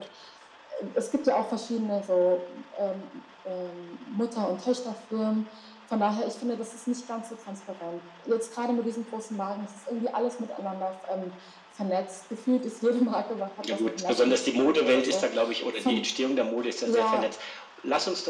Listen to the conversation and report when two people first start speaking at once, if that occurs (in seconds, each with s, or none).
13.7 s